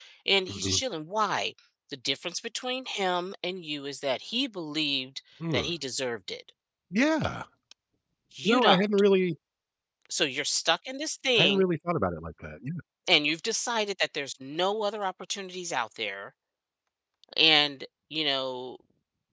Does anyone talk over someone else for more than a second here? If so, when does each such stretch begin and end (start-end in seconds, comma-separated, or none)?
none